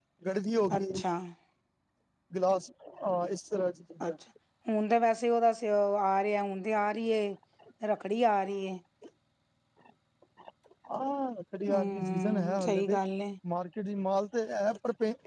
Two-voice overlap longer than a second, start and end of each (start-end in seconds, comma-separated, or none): 11.7-13.0